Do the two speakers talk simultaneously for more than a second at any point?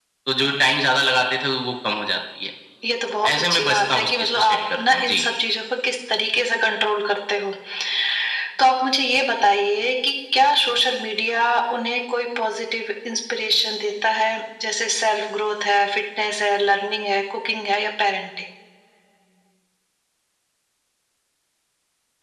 Yes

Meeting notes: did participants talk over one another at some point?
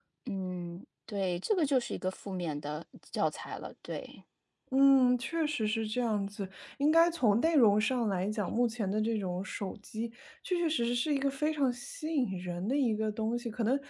No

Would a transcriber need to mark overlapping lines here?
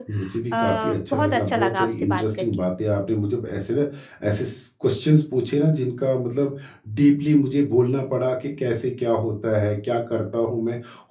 Yes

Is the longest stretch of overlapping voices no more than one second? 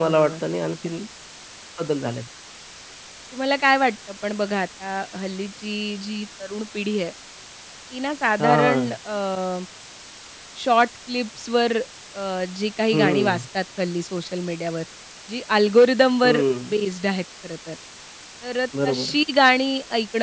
Yes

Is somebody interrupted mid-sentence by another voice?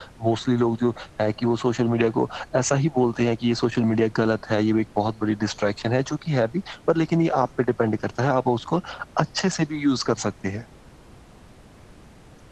No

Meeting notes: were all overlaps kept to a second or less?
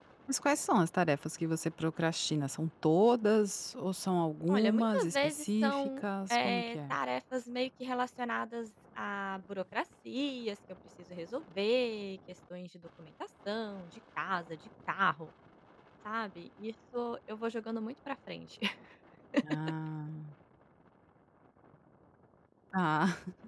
No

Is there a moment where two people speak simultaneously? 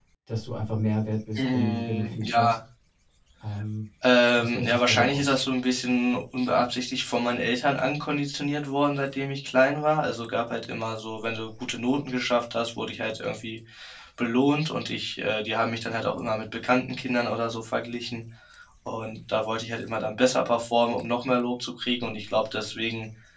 Yes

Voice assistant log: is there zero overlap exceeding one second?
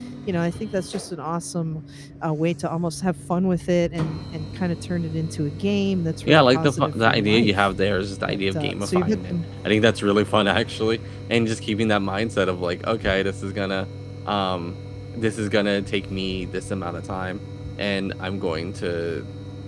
No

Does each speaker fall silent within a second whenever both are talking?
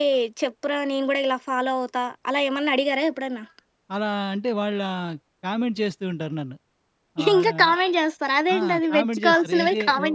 No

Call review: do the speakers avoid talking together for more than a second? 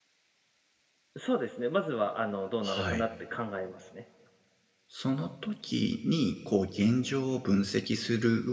Yes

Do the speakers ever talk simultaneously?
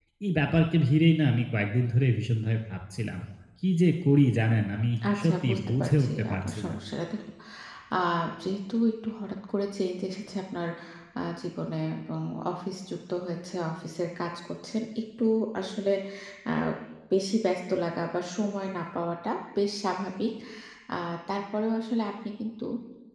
Yes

